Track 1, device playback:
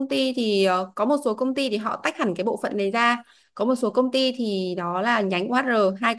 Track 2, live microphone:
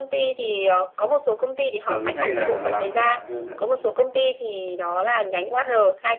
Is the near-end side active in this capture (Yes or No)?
Yes